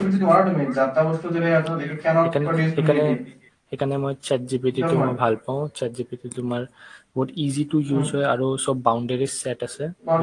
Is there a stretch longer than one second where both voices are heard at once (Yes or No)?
No